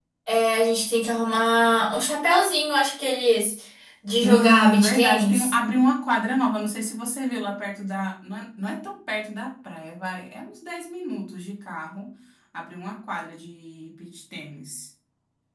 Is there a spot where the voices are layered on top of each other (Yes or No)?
Yes